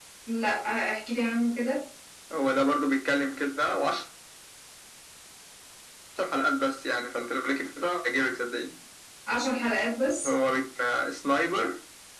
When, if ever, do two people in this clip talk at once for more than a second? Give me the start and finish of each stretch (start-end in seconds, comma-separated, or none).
none